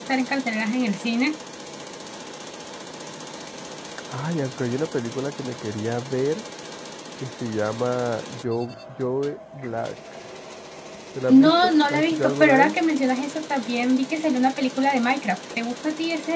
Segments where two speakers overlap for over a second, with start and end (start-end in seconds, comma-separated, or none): 11.3-12.8